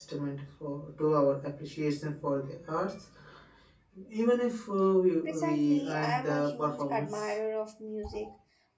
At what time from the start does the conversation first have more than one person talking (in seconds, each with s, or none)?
5.2 s